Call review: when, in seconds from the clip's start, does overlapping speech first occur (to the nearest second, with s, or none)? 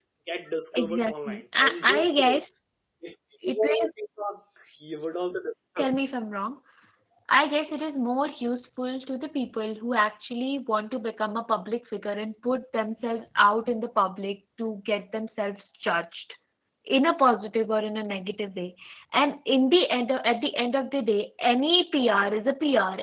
1 s